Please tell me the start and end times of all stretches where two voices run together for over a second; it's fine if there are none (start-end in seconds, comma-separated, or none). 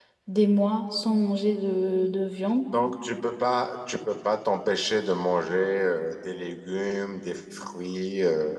none